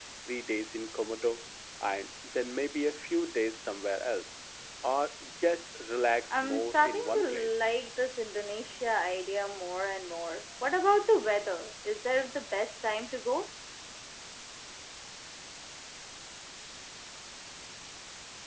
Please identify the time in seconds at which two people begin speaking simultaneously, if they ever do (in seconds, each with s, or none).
6.3 s